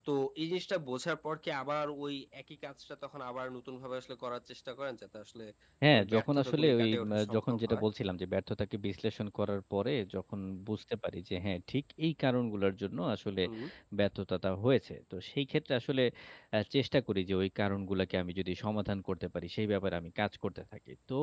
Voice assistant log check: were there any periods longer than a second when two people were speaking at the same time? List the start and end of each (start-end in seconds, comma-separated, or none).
6.0-7.8